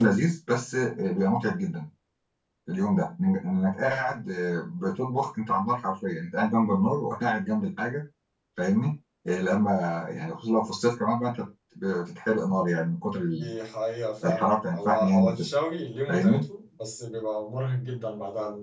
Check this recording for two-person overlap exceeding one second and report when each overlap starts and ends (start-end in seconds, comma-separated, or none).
14.2-15.5